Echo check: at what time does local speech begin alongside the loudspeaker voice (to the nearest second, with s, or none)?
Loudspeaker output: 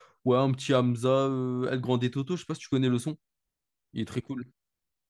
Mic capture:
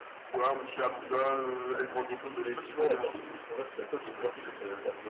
2 s